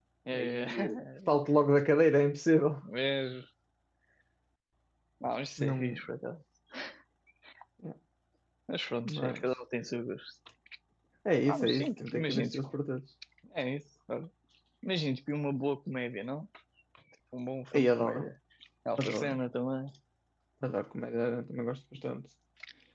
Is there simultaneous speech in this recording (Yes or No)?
Yes